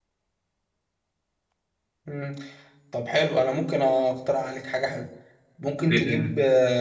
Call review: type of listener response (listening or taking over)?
listening